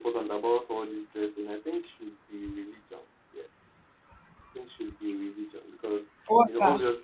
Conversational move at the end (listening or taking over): listening